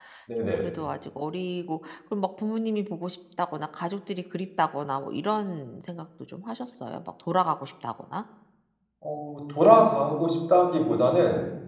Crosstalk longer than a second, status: none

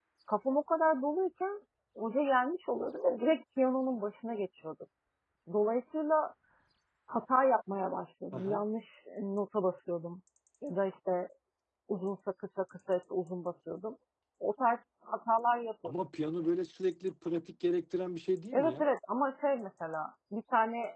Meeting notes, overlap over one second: none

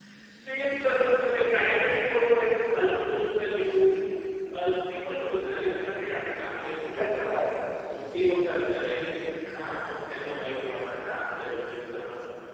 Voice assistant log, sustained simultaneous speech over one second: none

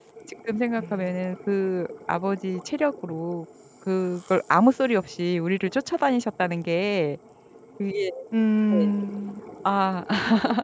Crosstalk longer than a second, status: none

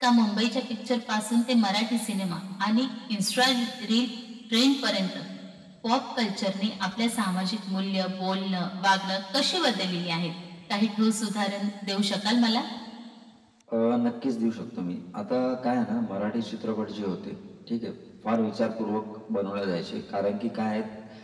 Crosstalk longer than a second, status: none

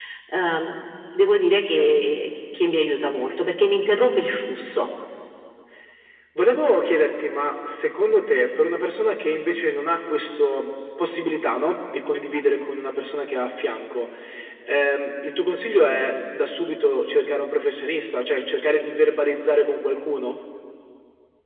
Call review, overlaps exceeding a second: none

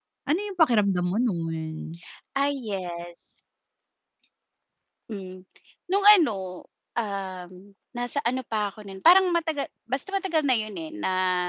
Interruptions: none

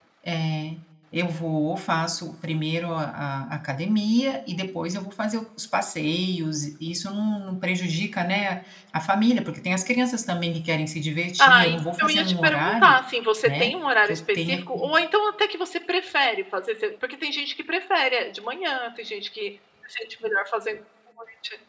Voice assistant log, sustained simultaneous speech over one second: present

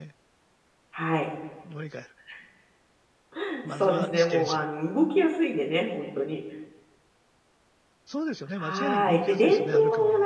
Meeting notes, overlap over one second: present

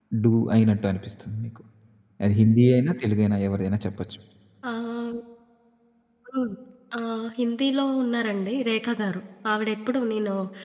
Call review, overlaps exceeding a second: none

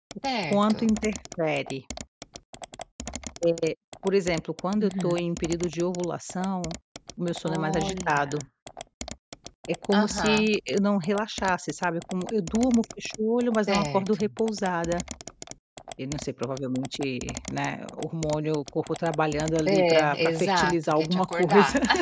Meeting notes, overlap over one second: present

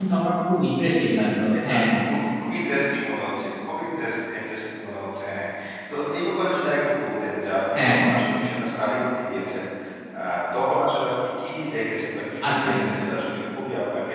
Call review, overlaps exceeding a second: none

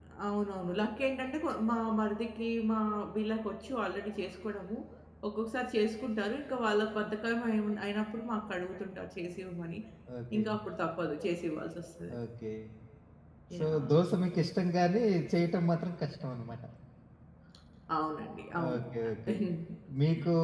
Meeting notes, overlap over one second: none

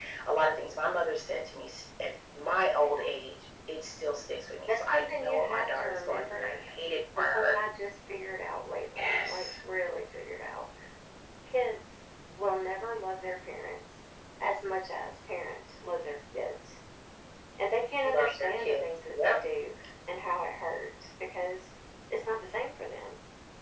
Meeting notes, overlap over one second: present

